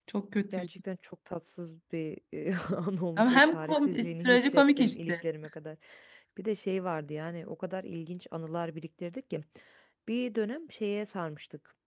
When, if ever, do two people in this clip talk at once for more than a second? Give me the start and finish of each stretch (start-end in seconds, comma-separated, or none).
3.2-5.1